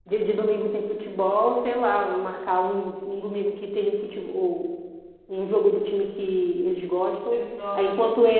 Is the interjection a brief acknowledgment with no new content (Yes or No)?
Yes